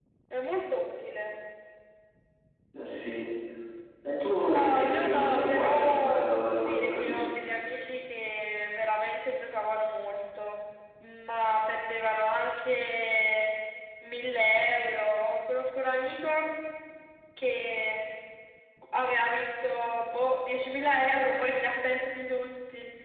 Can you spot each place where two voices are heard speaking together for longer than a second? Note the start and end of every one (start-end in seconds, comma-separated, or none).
4.4-7.3